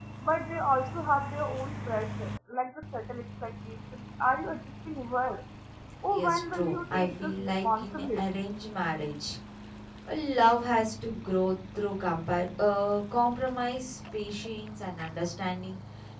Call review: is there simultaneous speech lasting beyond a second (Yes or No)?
Yes